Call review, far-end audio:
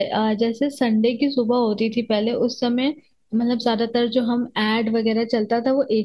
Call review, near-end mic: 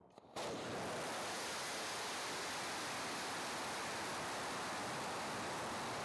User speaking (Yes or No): No